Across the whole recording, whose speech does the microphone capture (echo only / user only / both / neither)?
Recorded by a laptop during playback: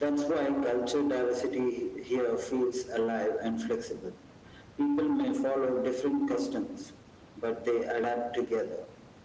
echo only